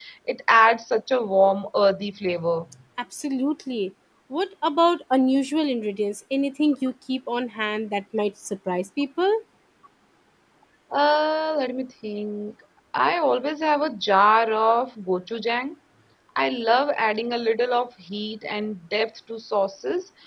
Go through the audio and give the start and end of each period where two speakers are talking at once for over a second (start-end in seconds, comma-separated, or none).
none